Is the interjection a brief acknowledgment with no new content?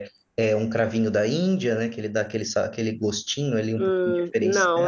No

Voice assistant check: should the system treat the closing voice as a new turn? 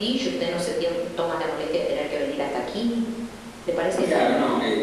Yes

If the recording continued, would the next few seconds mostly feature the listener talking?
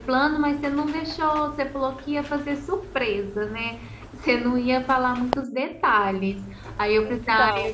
No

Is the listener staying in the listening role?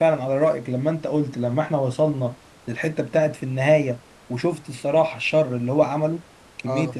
No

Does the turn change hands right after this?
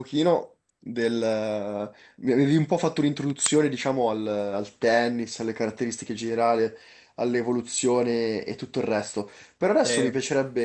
No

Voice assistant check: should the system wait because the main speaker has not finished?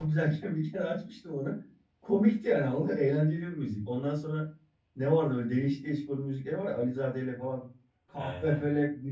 Yes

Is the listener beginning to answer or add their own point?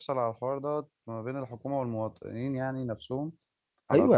Yes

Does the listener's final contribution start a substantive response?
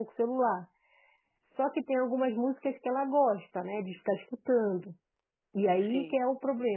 No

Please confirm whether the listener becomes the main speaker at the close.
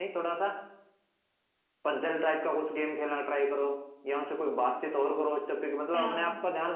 No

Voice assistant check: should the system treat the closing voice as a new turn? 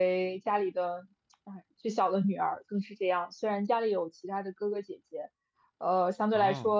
No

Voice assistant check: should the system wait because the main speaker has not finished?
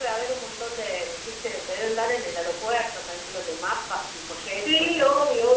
No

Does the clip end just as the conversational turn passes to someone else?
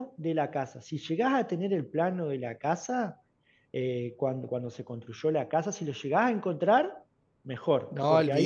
Yes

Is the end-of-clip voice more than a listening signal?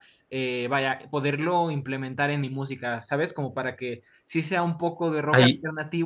No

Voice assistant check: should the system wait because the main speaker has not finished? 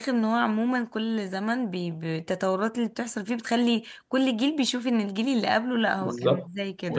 No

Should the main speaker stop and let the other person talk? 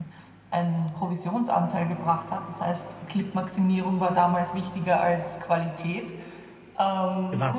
Yes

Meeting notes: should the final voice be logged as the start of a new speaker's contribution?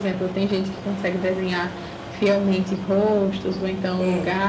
No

